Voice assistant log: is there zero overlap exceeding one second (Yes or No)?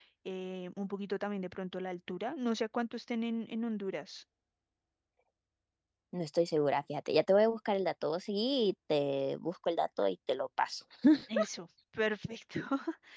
Yes